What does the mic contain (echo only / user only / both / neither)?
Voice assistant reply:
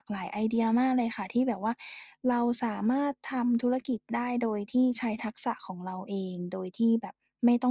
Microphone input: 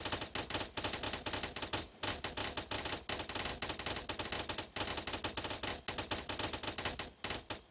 neither